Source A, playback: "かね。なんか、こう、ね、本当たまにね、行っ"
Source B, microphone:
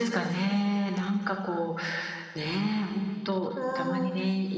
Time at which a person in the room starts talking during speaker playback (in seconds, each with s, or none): 3.5 s